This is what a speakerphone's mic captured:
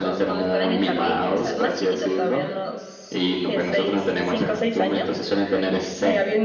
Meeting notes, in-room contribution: present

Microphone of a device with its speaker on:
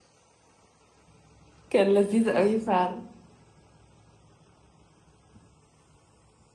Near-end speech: present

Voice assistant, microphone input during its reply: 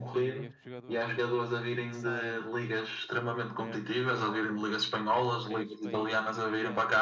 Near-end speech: present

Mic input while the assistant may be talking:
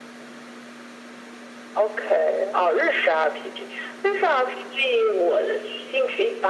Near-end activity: none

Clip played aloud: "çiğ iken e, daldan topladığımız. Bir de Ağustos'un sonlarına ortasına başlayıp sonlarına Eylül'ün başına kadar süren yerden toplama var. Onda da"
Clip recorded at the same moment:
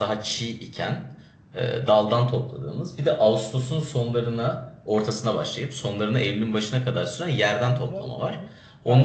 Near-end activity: present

